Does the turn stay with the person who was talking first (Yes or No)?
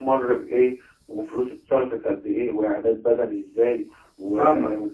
Yes